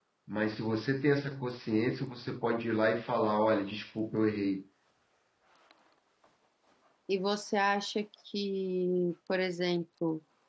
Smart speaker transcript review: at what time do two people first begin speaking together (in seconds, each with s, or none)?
none